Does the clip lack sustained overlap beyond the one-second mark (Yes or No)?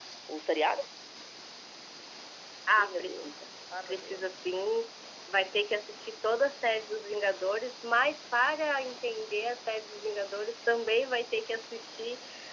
Yes